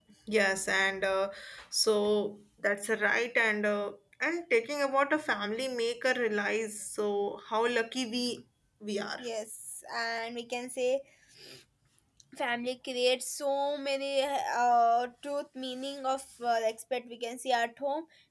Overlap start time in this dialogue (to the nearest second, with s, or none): none